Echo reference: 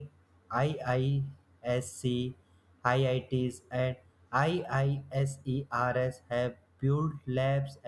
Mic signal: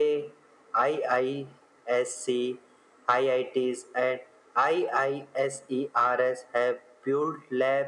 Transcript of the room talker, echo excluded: none

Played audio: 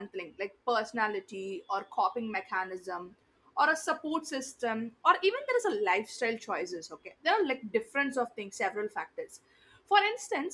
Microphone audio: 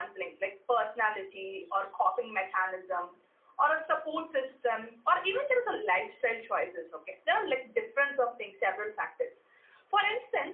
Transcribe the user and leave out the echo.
none

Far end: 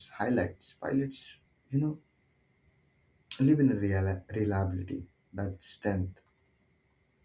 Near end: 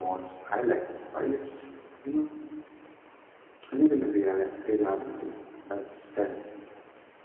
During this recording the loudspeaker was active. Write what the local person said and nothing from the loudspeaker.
none

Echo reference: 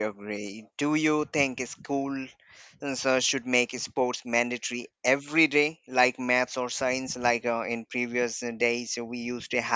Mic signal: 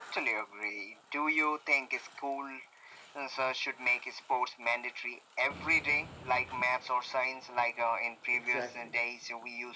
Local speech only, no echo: Exactly.

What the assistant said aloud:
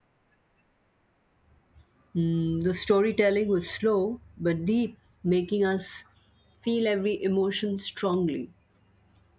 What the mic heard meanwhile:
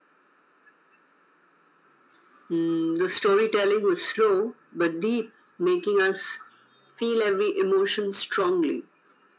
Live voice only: none

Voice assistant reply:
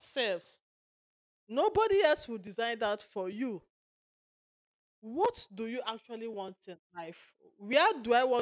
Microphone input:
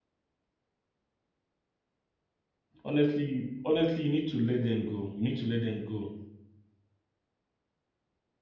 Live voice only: honestly honestly you need to let them go you need to let them go

